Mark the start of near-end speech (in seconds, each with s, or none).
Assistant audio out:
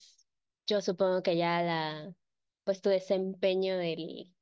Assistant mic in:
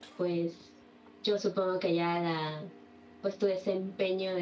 none